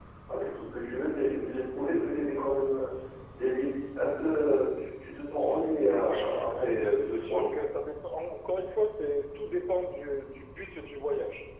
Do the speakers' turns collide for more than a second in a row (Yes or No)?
Yes